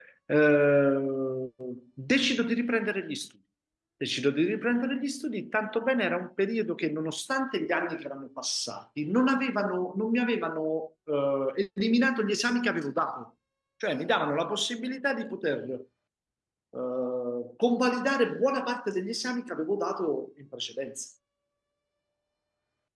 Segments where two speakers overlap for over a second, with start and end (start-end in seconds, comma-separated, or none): none